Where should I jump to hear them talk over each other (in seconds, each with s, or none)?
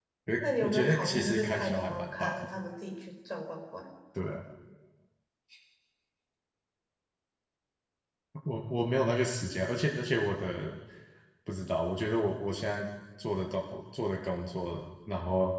0.6 s